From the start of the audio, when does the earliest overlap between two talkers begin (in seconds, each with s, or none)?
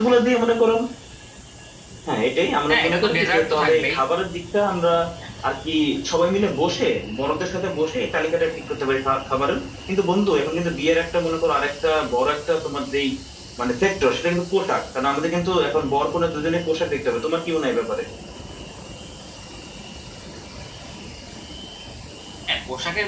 2.7 s